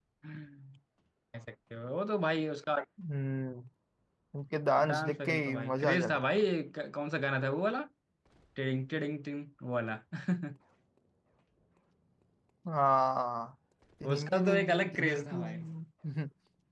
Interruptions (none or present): present